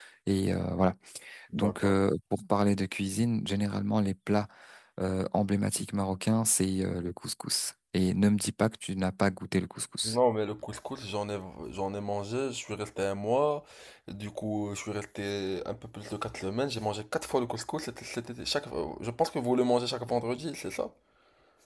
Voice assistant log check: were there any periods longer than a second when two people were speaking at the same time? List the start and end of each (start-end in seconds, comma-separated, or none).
none